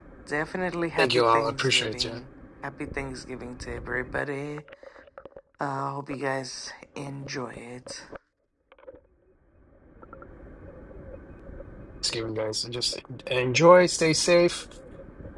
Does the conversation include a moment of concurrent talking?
Yes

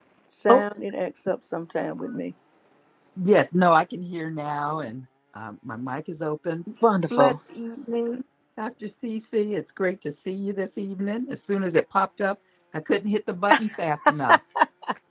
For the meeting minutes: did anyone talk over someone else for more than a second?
No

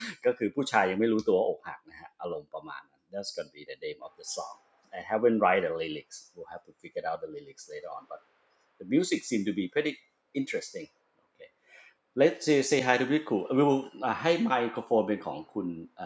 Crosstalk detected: No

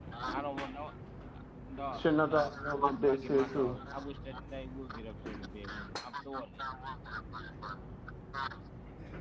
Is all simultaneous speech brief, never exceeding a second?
No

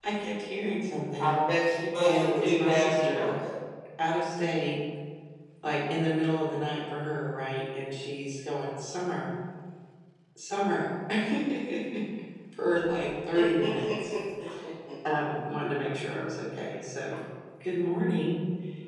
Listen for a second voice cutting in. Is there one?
Yes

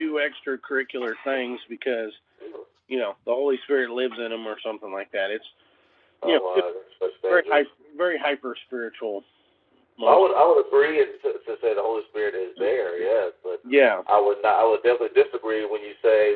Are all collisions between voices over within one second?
Yes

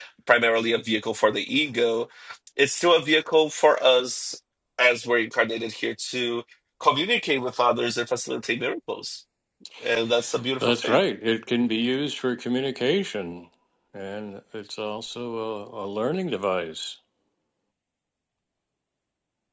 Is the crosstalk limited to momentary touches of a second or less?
Yes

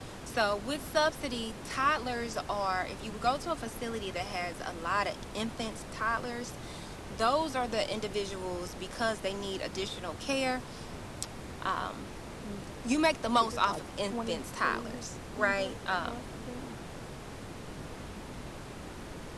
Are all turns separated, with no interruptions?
No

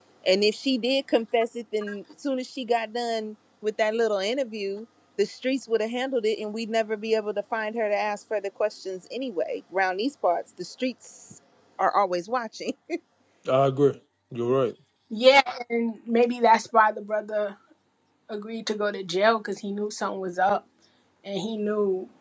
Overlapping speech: No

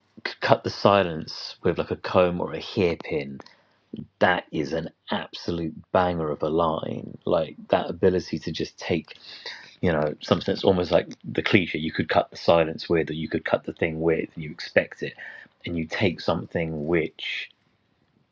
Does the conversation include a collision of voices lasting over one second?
No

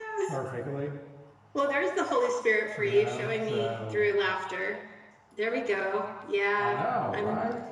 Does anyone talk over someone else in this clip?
Yes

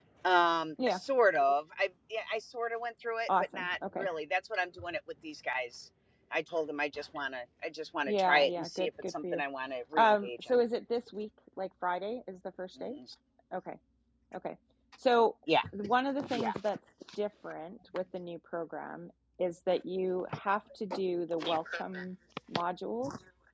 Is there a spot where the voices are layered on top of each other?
Yes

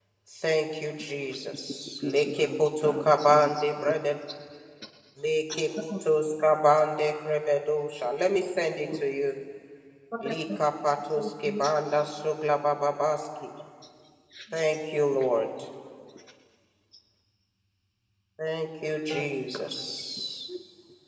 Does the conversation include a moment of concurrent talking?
Yes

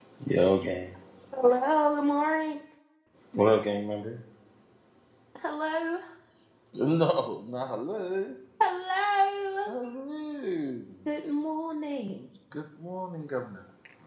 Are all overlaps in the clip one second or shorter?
Yes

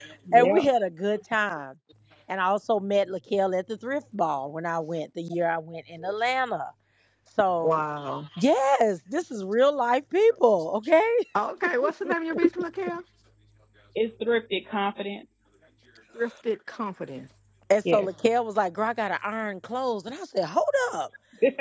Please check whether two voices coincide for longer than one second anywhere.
No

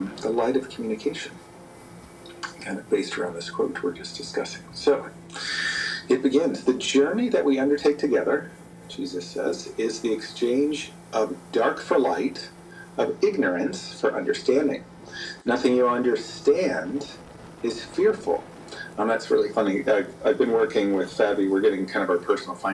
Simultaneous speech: No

